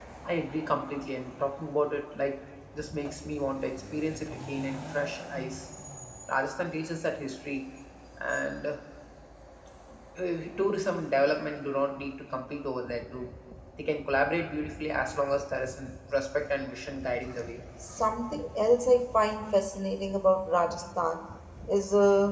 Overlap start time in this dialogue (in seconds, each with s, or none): none